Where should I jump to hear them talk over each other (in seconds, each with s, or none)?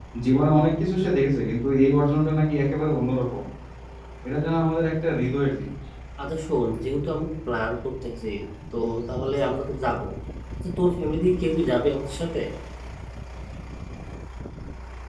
none